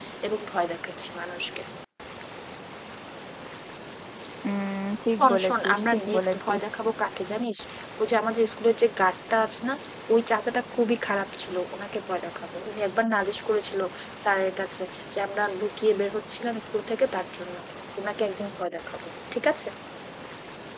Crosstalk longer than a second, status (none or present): present